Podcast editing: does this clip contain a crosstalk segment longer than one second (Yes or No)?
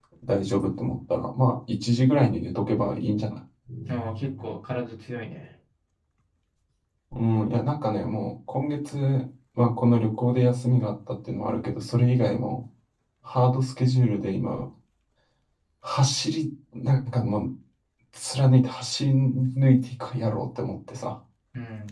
No